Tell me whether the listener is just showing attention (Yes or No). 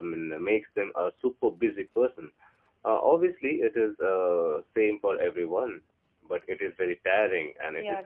No